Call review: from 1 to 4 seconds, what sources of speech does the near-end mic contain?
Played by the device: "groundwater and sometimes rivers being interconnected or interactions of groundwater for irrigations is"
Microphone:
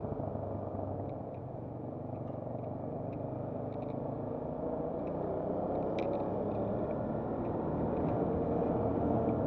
neither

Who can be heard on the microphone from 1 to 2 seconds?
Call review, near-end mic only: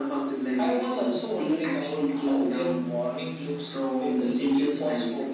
echo only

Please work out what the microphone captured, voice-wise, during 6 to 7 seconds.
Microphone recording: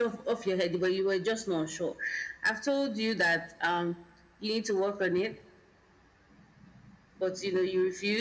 neither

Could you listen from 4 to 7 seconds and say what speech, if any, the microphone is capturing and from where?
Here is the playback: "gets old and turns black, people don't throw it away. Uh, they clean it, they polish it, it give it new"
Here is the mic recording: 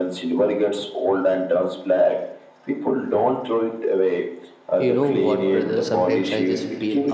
both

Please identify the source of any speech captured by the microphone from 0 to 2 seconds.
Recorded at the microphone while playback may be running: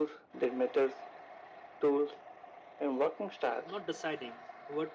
echo only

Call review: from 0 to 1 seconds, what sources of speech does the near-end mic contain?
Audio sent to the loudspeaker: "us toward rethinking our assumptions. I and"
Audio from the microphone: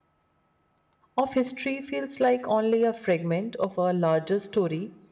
neither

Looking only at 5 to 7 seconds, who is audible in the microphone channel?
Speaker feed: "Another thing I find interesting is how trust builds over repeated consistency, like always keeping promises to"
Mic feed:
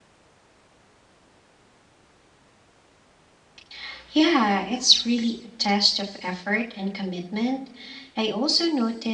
user only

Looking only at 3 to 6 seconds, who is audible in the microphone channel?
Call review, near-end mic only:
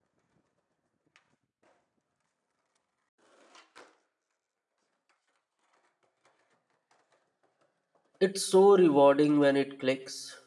neither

